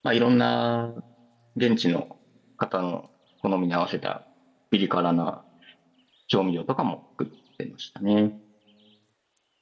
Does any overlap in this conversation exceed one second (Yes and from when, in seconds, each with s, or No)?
No